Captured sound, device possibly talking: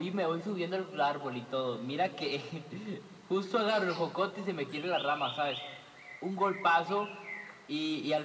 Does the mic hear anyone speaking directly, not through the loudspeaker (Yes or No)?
No